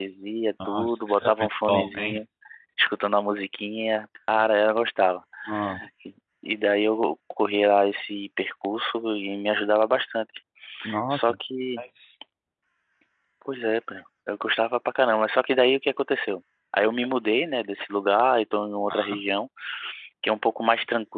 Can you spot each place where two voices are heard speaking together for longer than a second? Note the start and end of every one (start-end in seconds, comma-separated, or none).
0.6-2.2